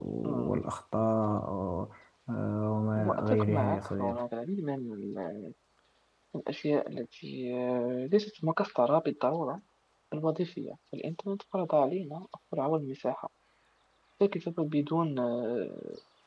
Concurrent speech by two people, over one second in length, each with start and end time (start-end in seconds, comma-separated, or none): 3.0-4.2